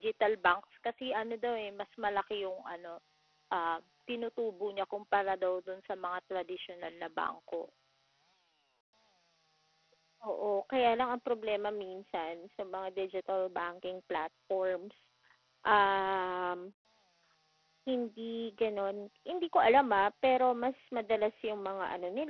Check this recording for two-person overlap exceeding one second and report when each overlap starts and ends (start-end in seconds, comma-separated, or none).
none